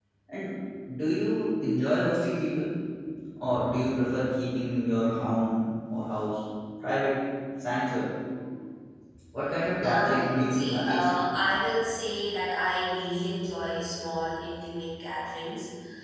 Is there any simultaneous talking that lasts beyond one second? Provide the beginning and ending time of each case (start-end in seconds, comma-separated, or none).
9.8-11.1